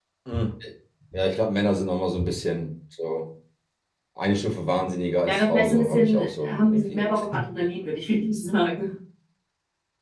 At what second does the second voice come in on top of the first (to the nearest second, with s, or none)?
5 s